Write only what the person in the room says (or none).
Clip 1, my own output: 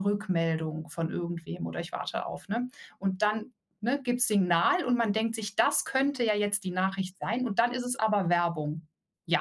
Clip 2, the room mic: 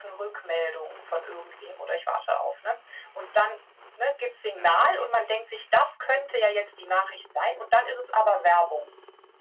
Ja, sehr nervig.